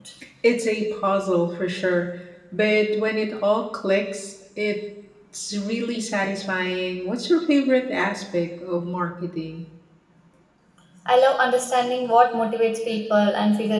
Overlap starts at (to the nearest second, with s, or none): none